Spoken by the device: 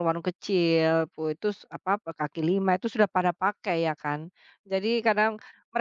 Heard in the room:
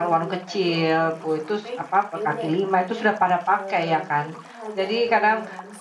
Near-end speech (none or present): present